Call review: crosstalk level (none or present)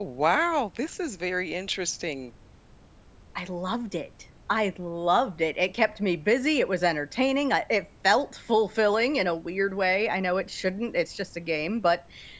none